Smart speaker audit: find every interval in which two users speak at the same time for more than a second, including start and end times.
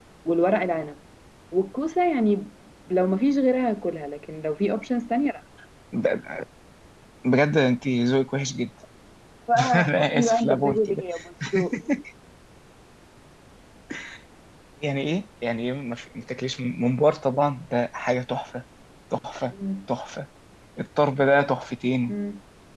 9.7-11.0

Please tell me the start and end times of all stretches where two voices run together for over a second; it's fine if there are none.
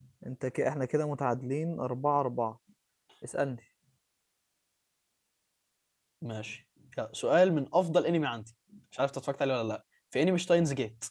none

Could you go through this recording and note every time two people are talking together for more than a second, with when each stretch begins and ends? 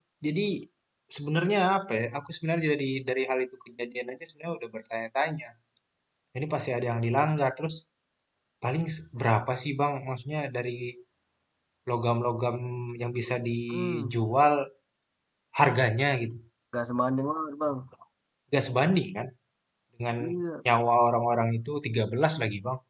none

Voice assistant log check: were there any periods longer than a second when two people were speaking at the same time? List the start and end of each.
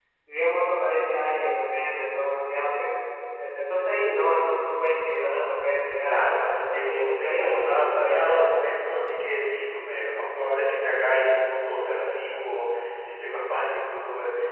6.7-8.4

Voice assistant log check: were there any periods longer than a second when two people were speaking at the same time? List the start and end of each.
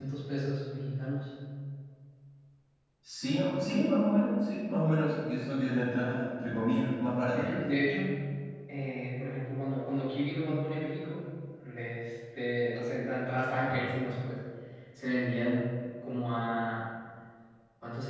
none

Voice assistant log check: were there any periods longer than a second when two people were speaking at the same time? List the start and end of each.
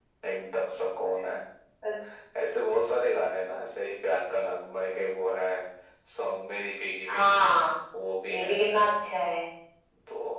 none

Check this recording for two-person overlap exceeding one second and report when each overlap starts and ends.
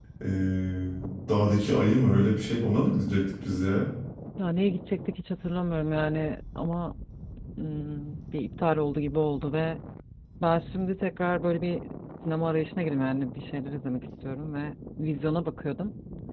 none

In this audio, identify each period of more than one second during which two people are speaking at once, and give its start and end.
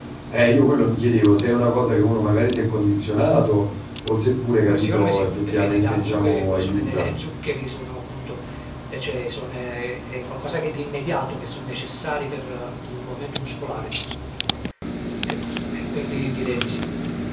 4.7-7.1

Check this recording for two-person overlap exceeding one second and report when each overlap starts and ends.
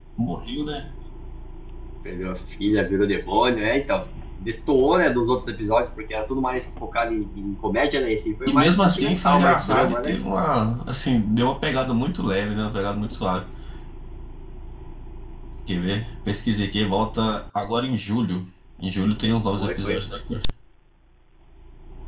8.5-10.2

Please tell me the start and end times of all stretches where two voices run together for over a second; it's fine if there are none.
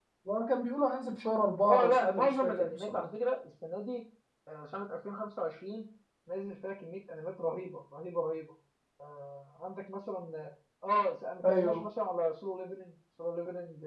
1.6-3.0

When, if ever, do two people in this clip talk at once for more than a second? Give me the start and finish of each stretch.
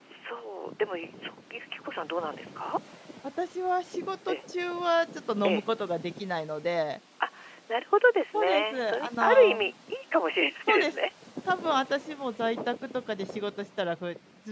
8.3-9.7

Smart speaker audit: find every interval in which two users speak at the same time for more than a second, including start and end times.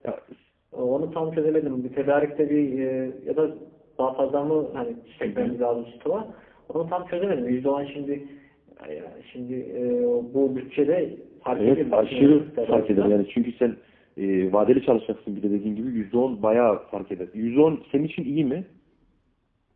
11.5-13.1

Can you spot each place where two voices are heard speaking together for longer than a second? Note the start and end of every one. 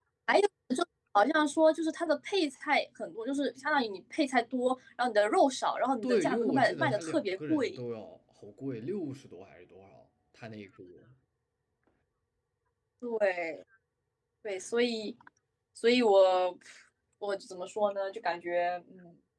6.0-7.8

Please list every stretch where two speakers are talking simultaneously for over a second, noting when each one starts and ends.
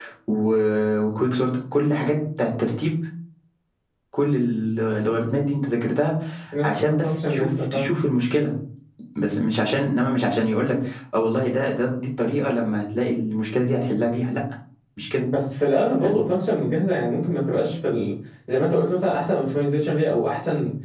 6.6-7.9

